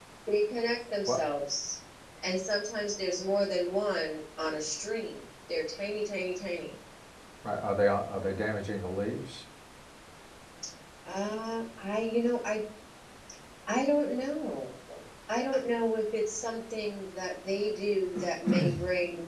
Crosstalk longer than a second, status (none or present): none